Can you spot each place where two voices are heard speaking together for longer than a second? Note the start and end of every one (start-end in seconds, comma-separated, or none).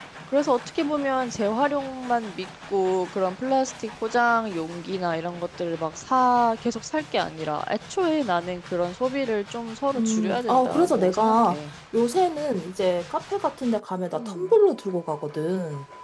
10.0-11.6